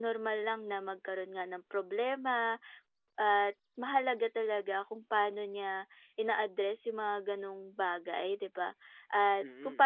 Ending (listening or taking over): listening